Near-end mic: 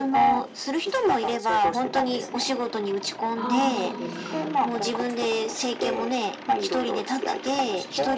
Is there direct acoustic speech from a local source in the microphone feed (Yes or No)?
Yes